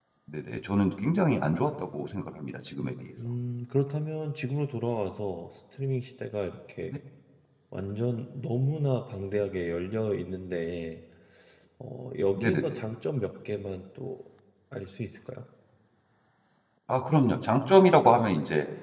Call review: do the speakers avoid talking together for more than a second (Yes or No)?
Yes